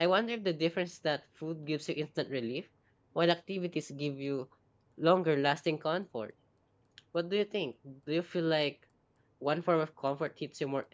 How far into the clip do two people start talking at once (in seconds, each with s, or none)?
none